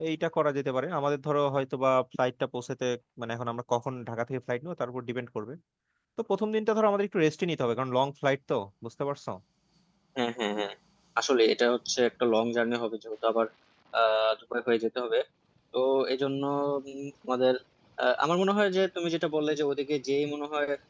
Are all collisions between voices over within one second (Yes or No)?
Yes